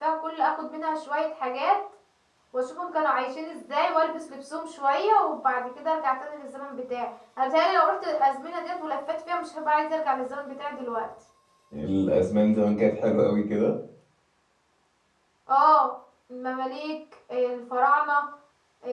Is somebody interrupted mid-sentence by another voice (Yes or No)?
No